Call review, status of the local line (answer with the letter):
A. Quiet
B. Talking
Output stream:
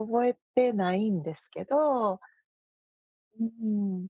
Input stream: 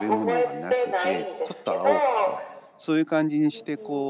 B